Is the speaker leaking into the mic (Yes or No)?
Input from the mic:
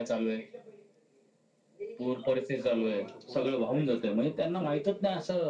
Yes